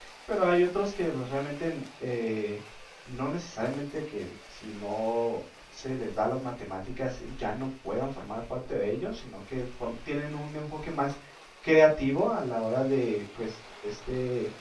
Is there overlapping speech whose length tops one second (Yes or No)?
No